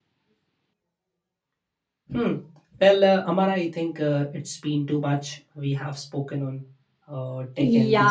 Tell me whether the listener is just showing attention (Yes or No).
No